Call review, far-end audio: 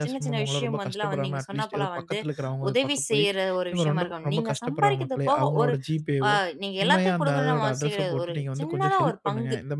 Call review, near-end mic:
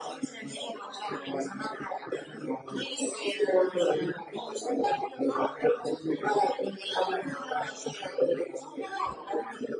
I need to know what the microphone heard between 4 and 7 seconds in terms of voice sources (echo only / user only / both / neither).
echo only